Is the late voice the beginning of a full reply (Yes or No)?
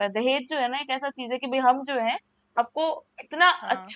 No